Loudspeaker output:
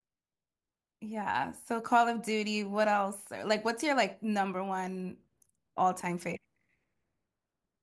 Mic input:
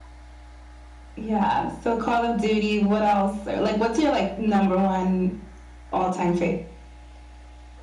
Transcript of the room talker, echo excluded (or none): none